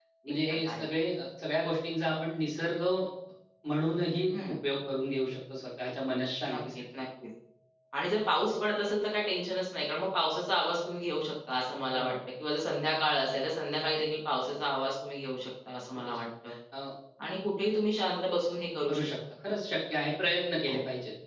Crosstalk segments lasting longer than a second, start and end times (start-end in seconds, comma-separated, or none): none